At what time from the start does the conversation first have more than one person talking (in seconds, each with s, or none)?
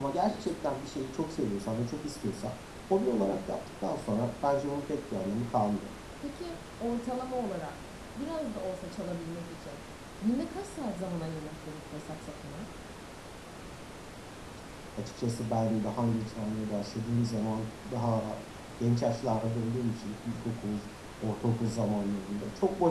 none